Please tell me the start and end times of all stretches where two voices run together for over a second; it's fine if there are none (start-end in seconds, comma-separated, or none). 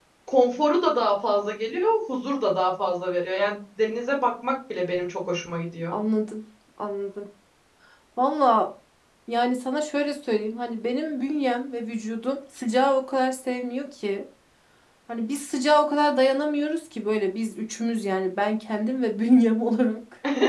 none